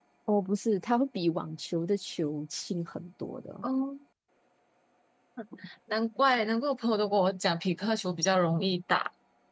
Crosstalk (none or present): none